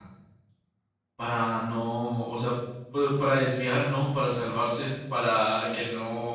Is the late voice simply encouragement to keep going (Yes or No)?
Yes